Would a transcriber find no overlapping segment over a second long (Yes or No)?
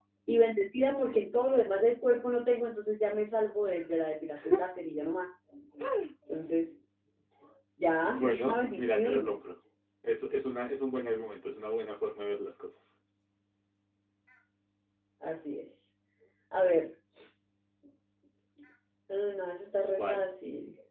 No